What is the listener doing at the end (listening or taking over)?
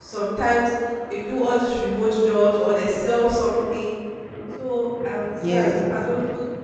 listening